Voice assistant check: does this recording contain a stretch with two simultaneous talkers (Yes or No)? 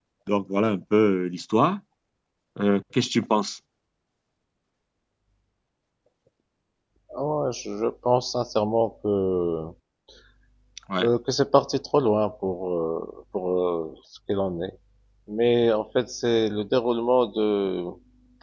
No